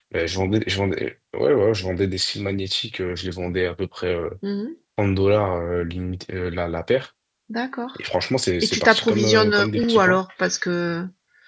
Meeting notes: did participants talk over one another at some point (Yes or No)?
Yes